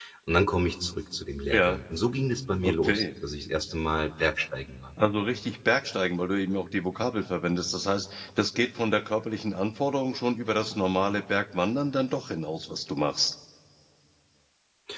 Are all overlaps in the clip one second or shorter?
Yes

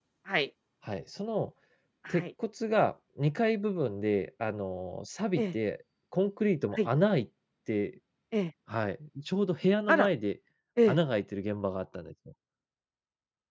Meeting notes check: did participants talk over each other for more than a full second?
No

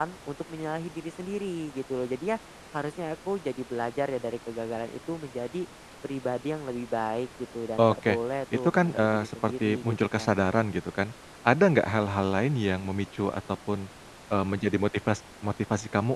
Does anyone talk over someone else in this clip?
Yes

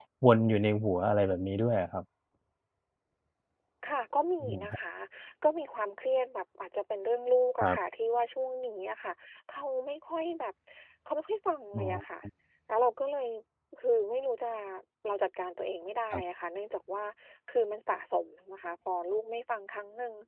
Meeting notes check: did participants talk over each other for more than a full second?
No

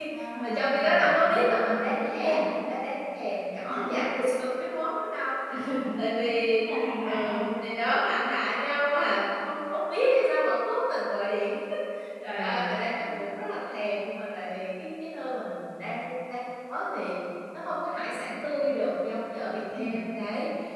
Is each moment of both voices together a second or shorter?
No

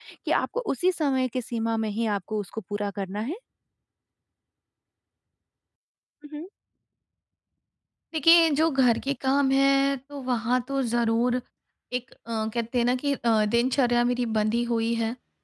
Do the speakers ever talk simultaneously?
No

